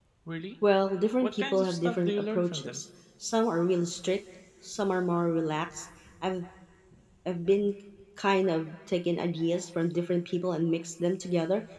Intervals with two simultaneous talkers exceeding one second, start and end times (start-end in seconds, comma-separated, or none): 1.2-2.8